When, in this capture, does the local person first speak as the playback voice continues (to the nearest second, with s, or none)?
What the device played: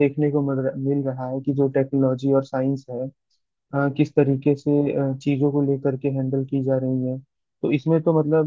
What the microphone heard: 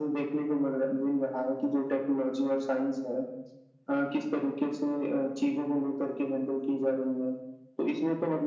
none